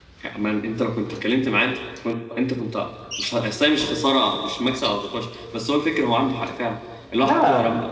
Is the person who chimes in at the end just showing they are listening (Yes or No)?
Yes